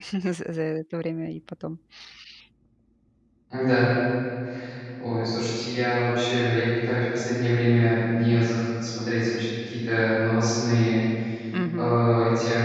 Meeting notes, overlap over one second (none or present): none